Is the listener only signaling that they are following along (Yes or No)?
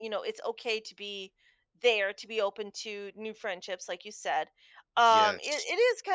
Yes